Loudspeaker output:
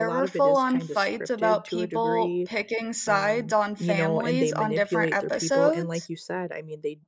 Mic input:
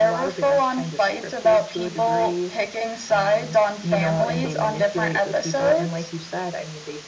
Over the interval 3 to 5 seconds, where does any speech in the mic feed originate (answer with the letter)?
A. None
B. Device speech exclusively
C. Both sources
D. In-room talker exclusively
B